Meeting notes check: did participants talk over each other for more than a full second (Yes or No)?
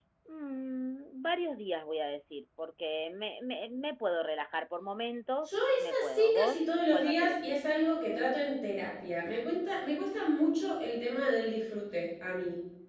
Yes